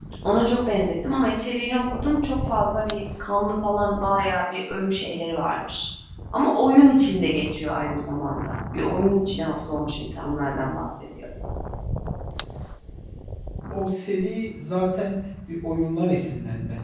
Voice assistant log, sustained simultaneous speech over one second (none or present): none